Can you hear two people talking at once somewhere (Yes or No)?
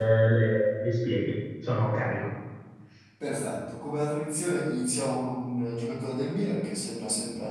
No